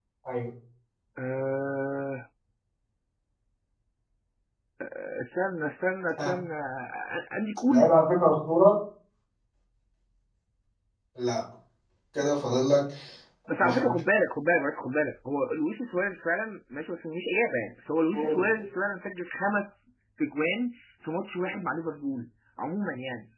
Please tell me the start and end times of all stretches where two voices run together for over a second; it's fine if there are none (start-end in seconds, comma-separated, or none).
none